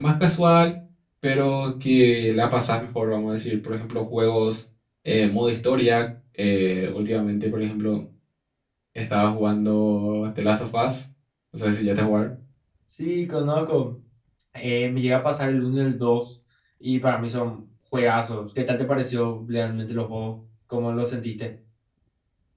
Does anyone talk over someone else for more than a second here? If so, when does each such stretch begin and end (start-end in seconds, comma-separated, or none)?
none